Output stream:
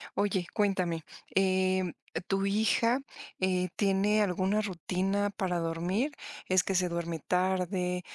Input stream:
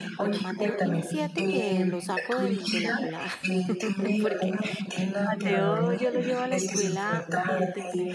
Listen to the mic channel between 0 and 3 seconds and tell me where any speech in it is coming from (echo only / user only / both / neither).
both